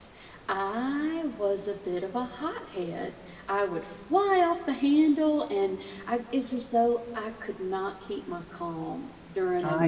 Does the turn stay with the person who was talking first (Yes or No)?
Yes